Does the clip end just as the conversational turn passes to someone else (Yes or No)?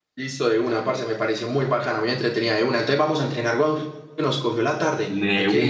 Yes